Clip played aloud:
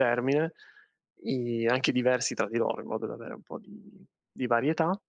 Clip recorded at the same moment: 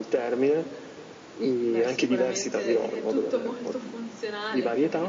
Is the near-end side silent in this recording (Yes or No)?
No